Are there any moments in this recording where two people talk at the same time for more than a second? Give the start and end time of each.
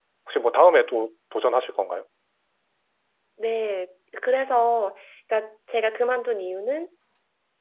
none

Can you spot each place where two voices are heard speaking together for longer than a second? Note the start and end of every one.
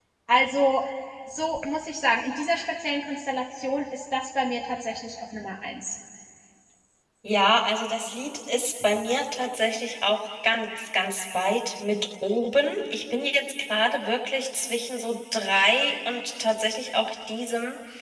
none

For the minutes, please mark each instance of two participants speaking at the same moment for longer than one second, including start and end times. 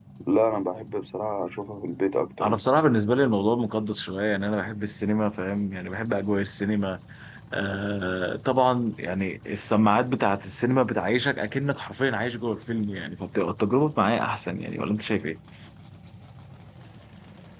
none

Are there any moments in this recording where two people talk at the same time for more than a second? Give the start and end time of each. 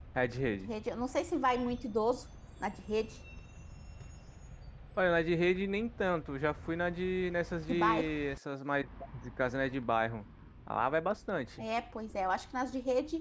none

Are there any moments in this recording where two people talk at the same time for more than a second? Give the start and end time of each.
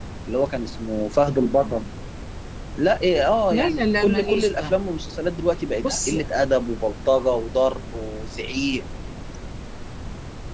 3.5-4.8

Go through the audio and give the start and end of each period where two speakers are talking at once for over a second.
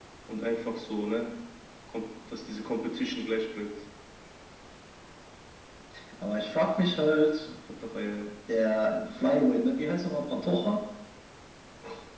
none

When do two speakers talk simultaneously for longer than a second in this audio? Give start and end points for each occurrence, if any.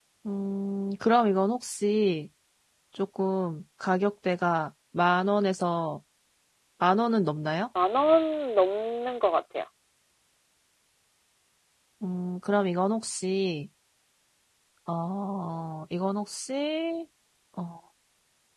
none

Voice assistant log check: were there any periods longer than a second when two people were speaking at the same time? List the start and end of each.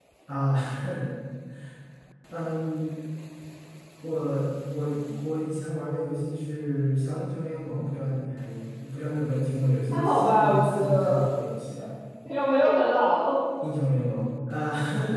9.9-11.2

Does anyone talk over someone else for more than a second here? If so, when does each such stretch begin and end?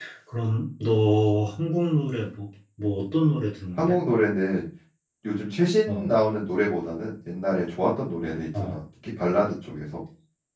none

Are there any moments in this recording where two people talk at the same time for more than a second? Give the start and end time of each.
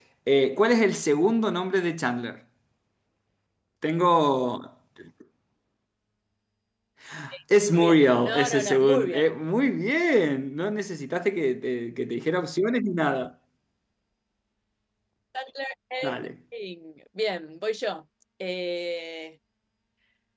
7.7-9.3

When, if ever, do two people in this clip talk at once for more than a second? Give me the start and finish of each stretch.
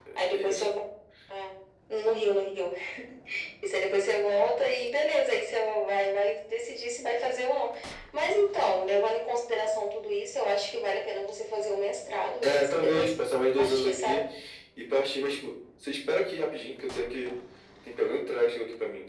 12.4-14.2

